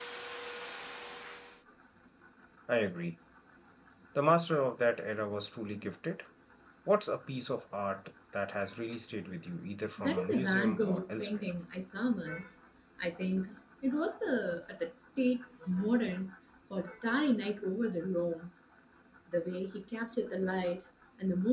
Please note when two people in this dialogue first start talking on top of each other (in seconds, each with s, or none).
10.0 s